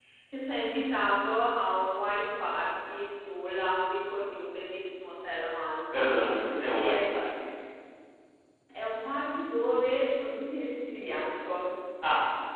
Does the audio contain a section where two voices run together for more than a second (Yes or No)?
No